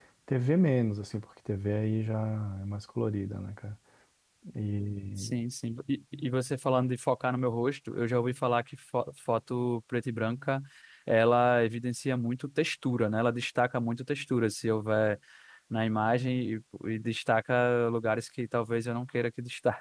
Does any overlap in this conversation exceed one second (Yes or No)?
No